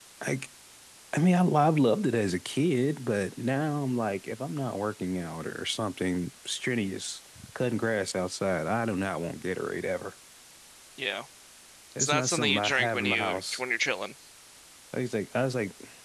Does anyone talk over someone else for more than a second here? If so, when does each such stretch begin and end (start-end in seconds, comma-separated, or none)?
12.0-13.6